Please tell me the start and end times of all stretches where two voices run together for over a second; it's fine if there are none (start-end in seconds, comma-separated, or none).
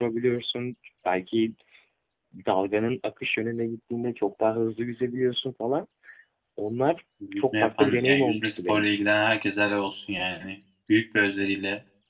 7.3-9.0